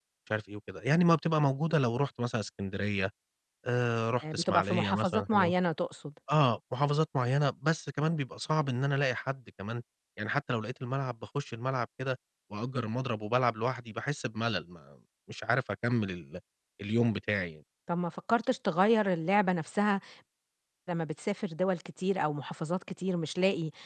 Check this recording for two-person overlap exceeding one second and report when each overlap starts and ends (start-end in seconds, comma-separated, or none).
4.2-5.5